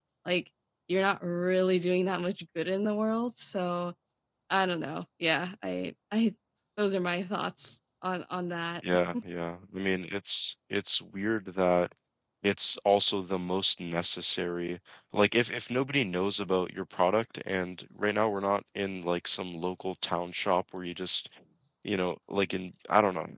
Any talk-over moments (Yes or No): No